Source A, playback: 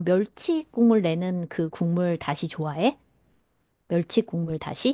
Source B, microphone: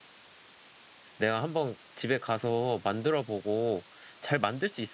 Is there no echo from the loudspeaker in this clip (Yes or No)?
Yes